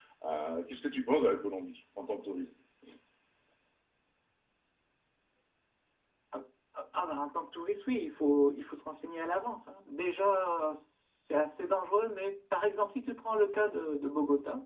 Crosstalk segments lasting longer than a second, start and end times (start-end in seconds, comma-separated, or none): none